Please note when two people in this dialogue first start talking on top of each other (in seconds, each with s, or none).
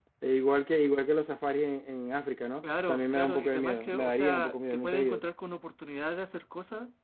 2.6 s